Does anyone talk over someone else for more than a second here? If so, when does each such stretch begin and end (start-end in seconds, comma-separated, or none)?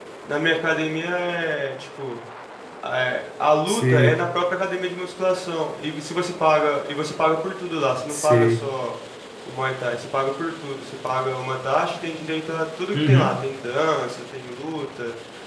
none